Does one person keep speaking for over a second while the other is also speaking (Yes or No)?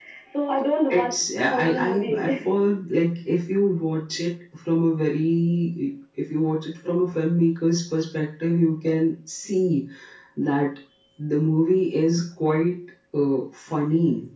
Yes